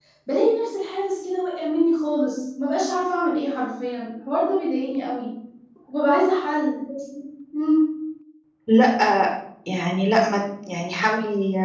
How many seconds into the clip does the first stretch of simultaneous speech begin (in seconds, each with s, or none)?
none